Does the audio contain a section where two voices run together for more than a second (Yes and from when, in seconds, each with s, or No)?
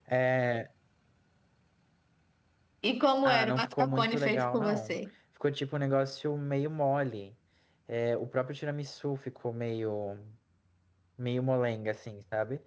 Yes, from 3.2 s